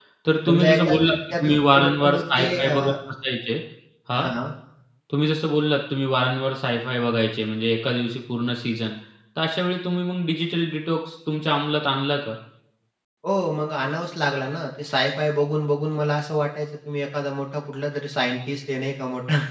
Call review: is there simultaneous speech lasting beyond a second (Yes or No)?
Yes